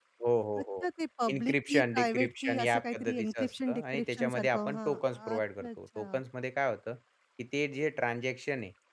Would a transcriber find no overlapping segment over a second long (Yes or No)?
No